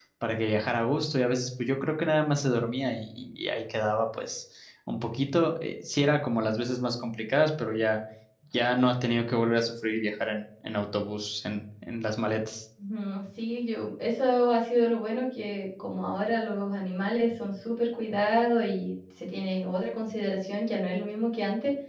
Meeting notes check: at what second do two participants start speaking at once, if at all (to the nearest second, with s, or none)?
none